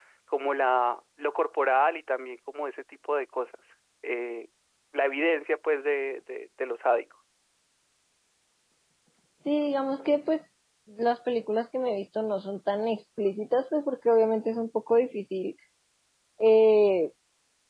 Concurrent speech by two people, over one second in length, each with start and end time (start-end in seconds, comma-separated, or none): none